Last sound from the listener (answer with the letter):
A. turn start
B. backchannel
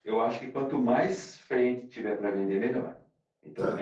A